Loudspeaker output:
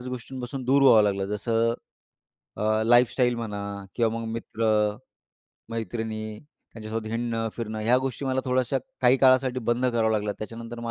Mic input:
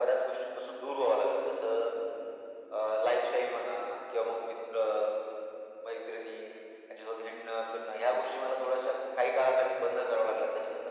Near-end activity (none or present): none